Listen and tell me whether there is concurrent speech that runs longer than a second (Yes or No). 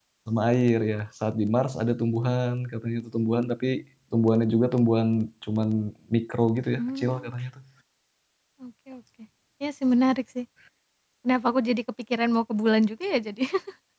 No